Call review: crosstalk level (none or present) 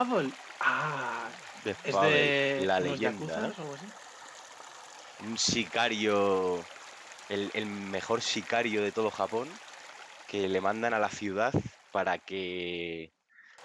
present